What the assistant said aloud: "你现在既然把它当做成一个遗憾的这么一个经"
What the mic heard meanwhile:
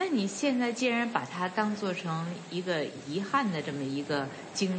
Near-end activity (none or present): none